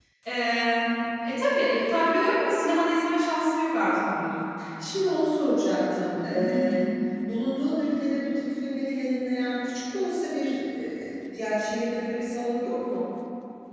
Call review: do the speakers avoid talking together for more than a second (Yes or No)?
Yes